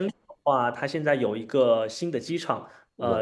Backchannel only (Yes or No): Yes